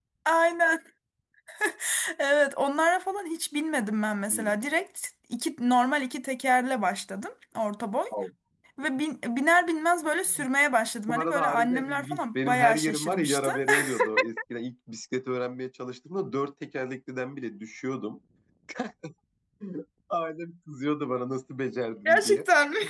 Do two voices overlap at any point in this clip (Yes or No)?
Yes